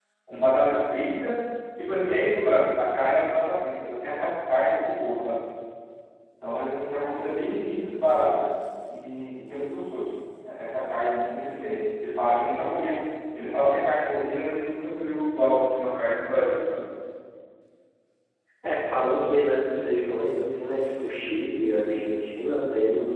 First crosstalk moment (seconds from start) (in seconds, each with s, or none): none